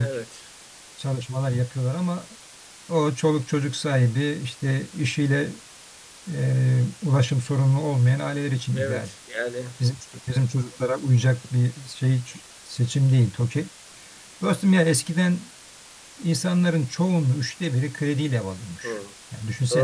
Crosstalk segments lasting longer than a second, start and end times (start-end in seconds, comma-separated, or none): none